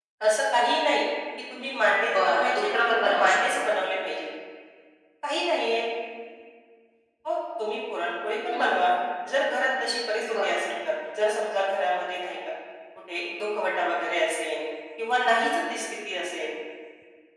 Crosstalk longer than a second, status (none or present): present